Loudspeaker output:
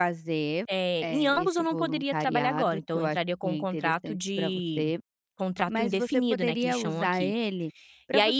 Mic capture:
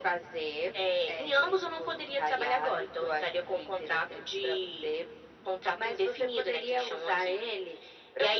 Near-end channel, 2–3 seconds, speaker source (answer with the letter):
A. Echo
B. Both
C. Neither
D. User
A